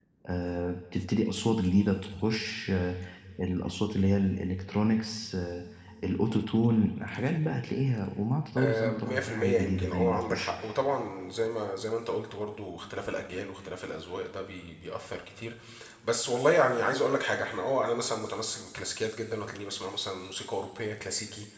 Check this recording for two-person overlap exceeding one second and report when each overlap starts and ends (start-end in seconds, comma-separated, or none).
8.6-10.5